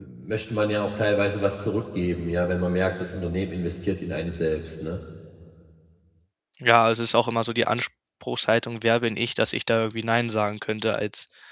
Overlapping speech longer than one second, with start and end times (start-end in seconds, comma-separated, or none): none